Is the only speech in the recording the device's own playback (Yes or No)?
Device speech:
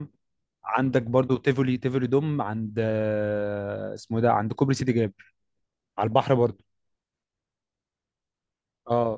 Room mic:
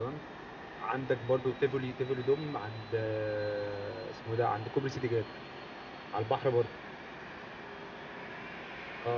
Yes